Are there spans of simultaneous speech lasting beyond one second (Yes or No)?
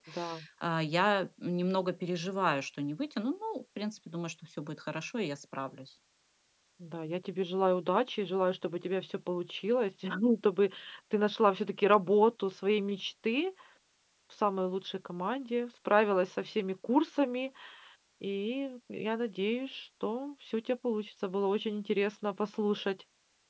No